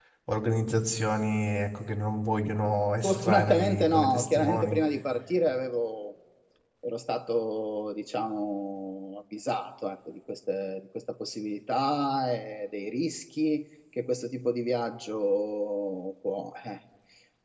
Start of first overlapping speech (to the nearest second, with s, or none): 3 s